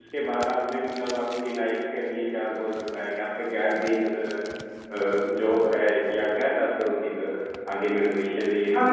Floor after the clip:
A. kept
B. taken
B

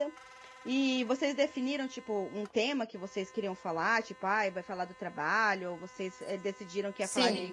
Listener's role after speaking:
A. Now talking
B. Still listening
A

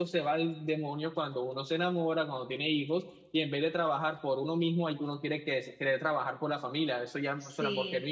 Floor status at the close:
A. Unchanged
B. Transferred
A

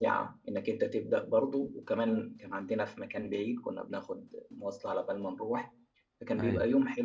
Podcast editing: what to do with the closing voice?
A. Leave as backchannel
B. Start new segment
A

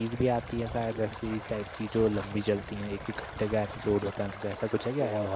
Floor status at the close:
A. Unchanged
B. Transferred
B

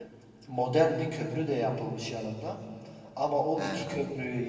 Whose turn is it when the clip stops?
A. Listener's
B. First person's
B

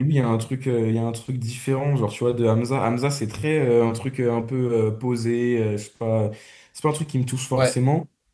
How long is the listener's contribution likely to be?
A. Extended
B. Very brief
B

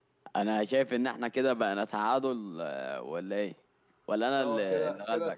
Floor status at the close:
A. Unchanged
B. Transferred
B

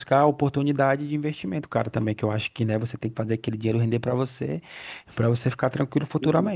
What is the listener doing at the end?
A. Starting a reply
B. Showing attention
A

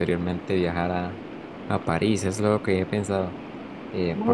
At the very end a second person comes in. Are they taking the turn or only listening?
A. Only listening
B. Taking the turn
A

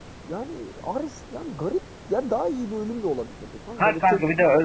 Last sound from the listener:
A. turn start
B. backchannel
A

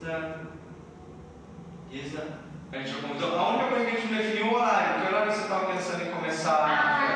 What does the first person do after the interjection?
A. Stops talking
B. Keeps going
A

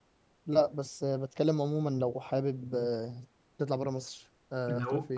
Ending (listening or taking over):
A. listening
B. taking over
B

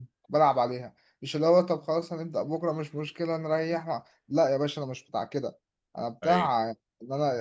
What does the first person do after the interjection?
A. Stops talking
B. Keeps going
B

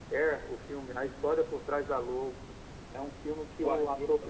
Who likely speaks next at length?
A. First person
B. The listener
A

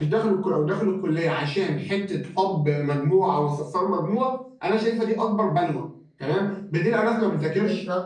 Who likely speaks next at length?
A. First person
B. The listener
A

